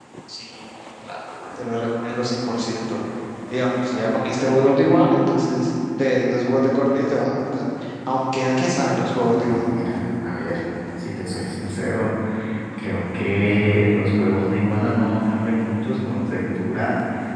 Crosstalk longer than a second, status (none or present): none